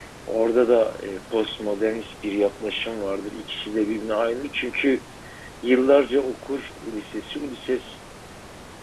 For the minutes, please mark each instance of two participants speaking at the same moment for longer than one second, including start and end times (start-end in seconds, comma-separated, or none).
none